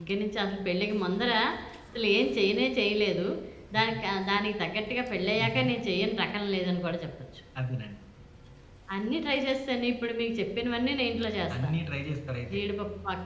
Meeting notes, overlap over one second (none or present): none